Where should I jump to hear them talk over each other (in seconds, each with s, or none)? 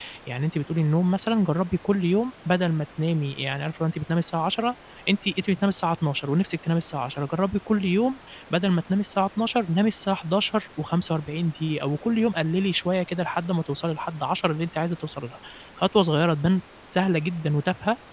none